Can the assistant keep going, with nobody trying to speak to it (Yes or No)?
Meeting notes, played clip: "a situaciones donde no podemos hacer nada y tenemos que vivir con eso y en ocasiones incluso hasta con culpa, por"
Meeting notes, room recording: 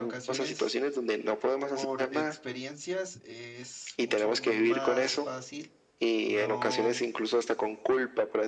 No